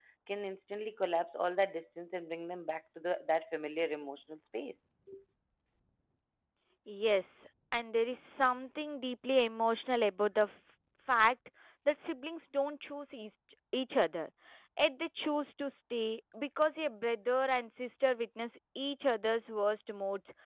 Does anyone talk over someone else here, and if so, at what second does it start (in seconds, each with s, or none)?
none